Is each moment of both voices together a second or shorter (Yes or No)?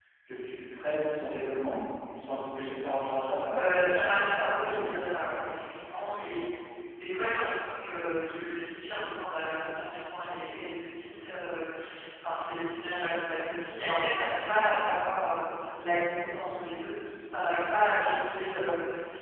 No